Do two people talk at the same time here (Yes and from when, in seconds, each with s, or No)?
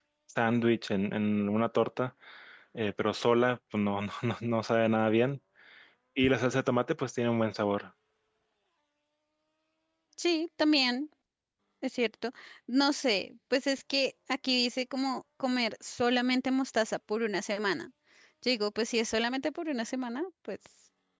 No